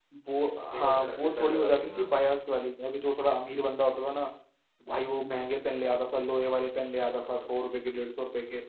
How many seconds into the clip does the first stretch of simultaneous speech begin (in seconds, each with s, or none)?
0.7 s